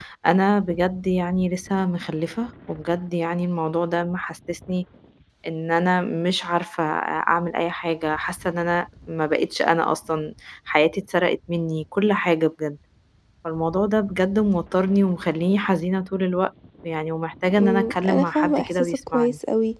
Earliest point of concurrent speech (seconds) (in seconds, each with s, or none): 17.6 s